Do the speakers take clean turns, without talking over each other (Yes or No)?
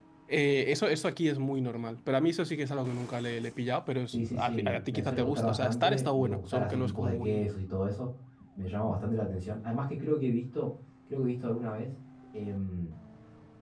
No